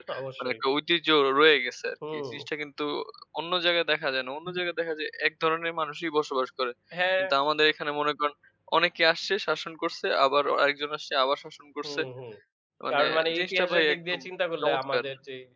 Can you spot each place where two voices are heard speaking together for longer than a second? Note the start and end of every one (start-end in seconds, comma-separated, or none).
12.9-14.2